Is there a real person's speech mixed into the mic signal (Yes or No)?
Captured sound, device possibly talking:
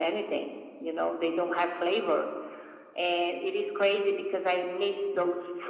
No